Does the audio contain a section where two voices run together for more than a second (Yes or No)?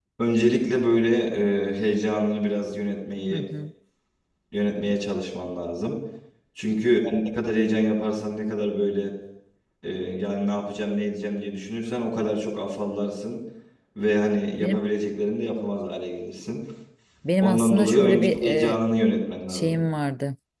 Yes